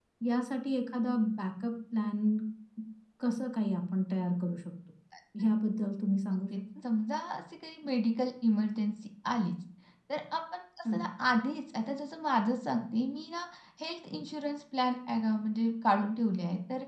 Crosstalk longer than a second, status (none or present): none